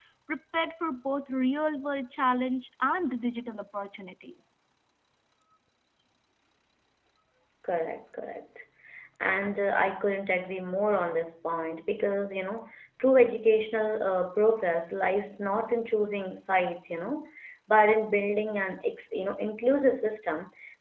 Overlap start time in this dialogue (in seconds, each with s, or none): none